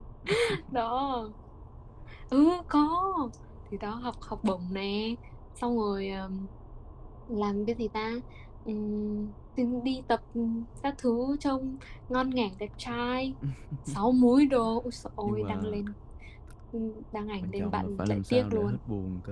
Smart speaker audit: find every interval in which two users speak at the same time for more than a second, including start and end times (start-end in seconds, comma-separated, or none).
17.4-18.8